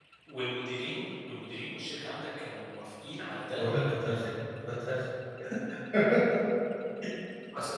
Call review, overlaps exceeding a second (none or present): none